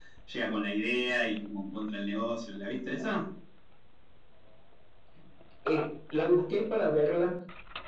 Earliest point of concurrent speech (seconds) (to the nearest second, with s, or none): none